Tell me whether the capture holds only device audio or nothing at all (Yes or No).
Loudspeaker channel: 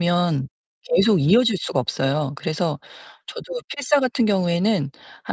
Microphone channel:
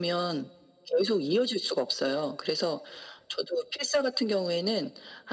Yes